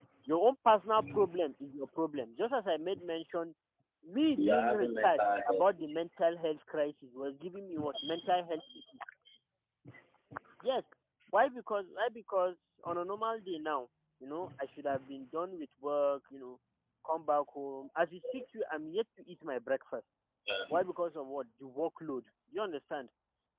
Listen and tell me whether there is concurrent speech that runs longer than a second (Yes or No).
Yes